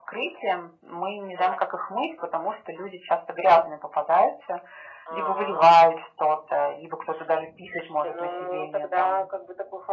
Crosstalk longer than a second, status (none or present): present